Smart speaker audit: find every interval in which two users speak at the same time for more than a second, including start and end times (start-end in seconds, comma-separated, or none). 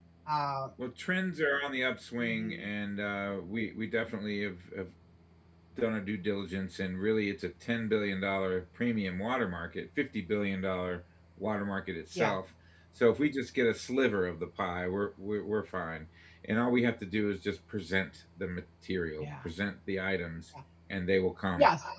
none